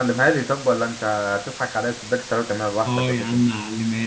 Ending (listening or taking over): taking over